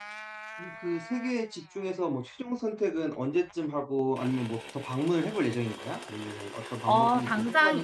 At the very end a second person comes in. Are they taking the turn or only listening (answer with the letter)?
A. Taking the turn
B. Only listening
A